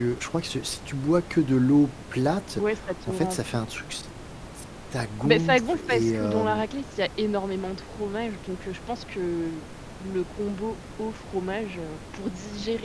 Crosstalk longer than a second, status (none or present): present